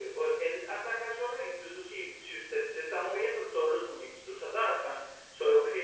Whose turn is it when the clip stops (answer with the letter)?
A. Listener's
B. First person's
B